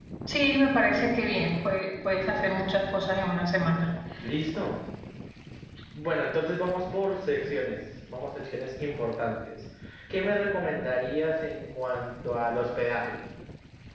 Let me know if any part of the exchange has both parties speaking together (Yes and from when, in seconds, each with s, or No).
No